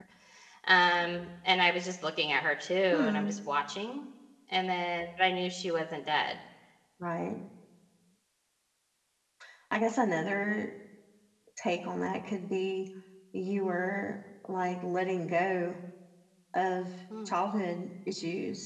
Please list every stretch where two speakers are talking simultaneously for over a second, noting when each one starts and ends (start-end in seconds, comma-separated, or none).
none